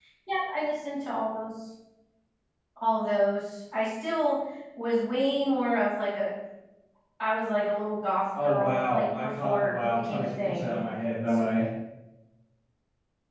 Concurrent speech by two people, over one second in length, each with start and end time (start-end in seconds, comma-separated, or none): 8.4-10.8